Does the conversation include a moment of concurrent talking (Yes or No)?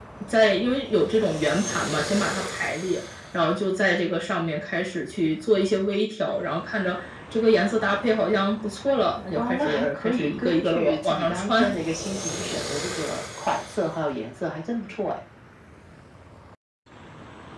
Yes